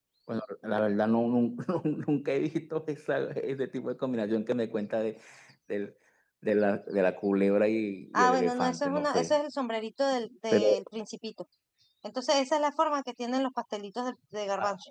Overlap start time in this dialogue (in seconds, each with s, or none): 8.1 s